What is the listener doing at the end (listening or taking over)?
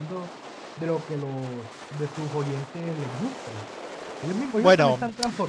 taking over